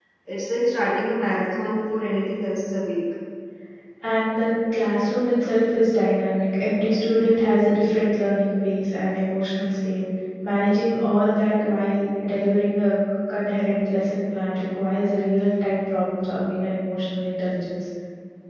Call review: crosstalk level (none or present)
none